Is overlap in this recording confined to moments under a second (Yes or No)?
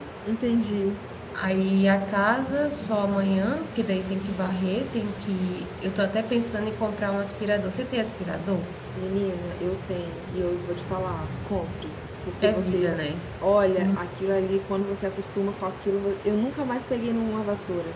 Yes